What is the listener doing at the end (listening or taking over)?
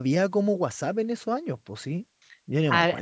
taking over